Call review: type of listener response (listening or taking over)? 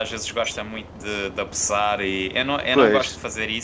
listening